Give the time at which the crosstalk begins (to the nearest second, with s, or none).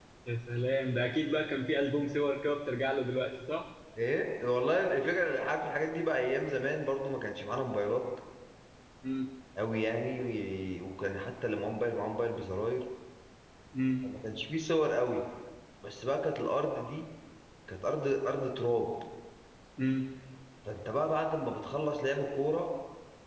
none